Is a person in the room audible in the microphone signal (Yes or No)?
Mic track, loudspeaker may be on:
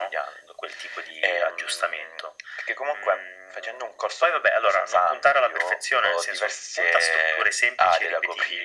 No